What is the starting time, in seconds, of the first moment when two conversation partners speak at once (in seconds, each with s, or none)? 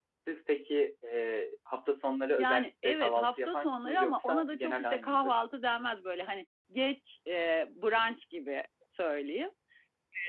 2.4 s